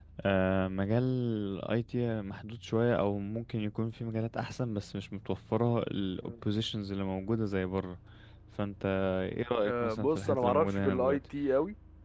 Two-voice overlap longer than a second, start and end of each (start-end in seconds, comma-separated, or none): 9.6-11.2